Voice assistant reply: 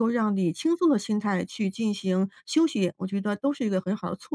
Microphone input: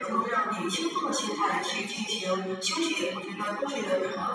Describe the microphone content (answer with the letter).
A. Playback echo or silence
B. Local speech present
A